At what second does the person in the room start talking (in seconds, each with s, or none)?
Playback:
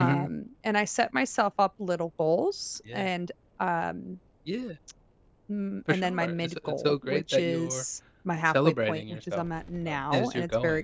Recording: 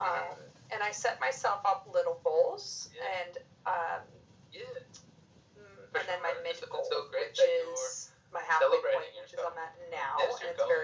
none